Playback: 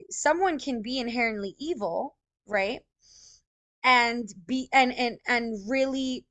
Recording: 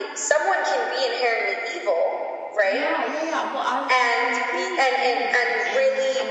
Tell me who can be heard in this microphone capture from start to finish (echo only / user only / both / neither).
both